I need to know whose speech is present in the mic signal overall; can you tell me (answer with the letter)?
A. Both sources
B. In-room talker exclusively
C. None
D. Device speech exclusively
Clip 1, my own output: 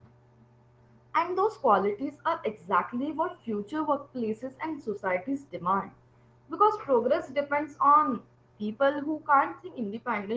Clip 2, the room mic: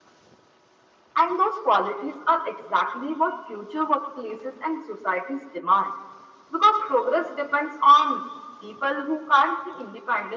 D